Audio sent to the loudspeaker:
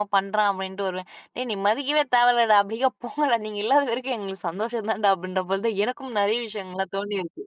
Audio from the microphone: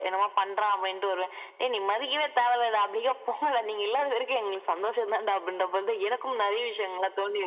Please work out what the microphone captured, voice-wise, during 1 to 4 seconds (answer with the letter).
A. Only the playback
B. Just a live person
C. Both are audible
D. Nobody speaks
A